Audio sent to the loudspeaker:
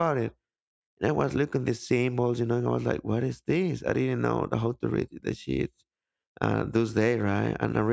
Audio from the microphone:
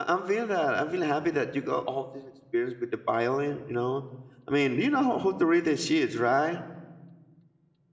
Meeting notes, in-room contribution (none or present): present